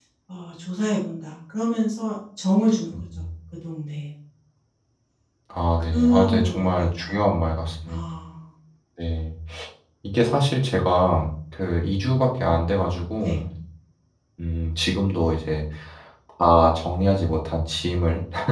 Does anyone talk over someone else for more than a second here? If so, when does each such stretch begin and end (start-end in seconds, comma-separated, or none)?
5.9-7.1